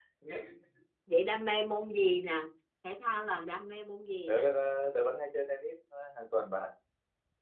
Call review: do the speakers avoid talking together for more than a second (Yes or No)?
Yes